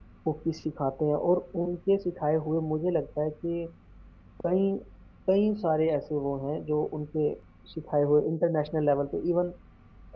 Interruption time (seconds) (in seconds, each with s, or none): none